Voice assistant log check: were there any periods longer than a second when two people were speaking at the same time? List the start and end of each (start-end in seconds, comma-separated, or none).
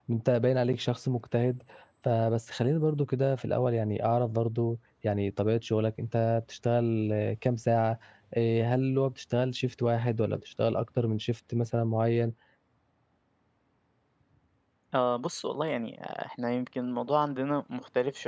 none